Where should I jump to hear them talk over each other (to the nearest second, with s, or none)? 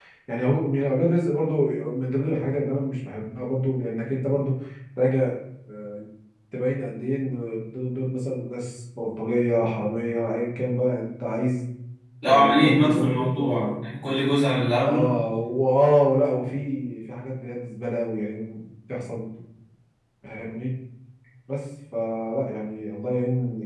12 s